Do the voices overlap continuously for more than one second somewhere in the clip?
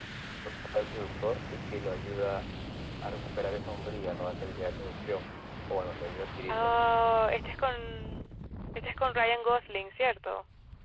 No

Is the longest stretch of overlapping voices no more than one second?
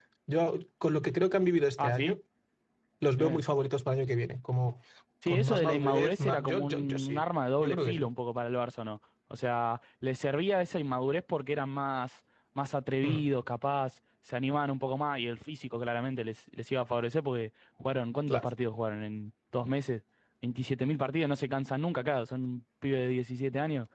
No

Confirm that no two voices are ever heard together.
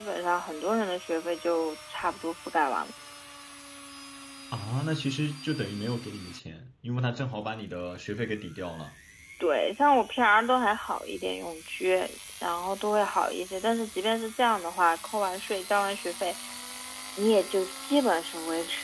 Yes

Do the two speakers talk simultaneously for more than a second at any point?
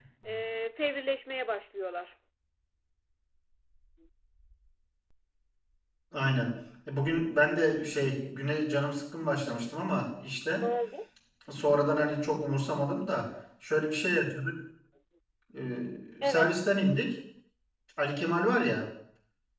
No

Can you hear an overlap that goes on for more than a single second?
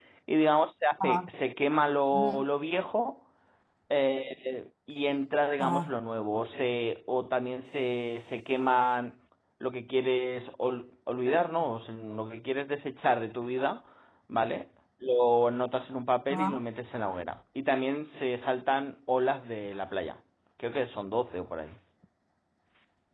No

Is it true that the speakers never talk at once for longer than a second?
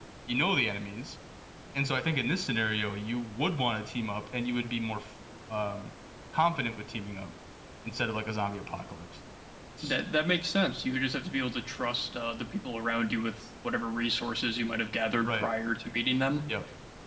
Yes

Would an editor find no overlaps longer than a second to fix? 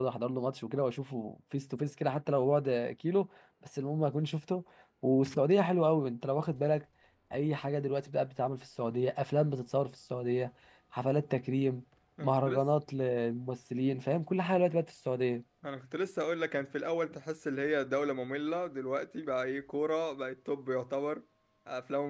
Yes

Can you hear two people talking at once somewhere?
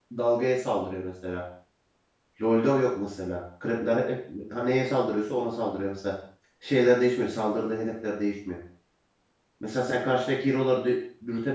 No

